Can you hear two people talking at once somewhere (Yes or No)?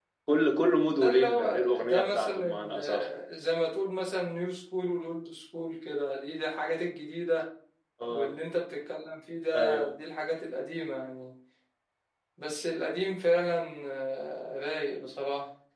Yes